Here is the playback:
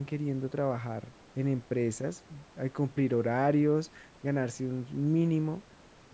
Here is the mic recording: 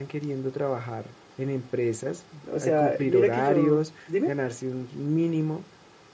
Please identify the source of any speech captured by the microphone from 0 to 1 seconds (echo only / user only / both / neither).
echo only